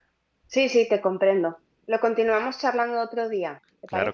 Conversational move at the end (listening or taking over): taking over